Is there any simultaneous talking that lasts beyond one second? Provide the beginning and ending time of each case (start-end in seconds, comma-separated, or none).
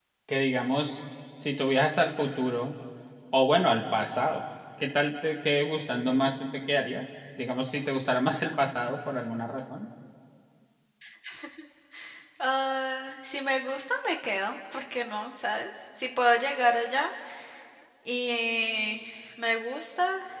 none